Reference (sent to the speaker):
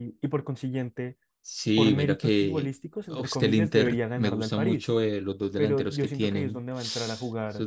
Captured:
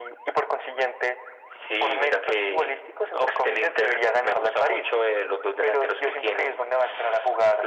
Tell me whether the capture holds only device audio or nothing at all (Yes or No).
Yes